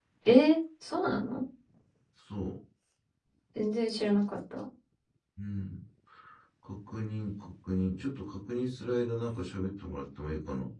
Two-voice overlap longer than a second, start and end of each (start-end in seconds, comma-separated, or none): none